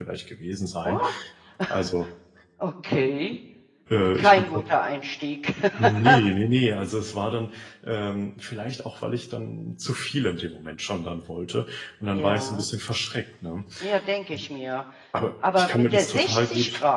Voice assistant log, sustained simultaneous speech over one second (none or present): present